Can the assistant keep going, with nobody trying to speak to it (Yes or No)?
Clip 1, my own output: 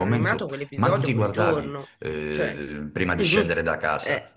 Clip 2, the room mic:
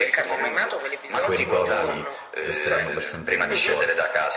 No